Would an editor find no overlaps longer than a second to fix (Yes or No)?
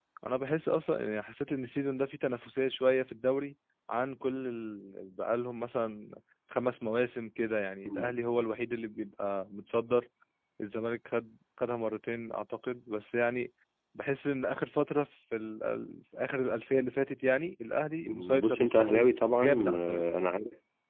No